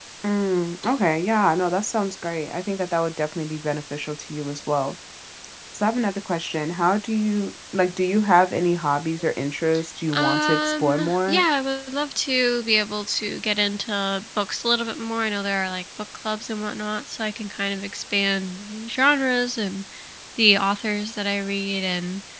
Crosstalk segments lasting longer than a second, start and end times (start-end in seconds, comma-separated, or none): 10.2-11.4